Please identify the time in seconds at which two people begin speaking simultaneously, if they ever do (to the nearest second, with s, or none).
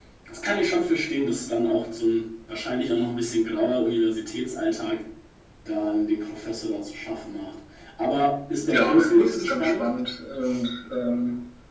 9 s